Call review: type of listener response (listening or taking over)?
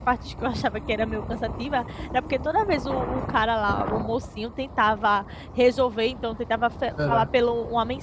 listening